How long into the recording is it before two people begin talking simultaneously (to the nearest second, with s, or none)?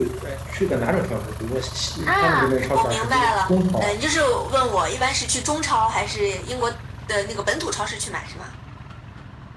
2 s